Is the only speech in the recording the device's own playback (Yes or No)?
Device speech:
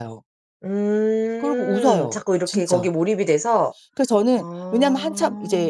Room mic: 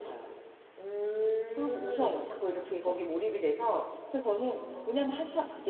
Yes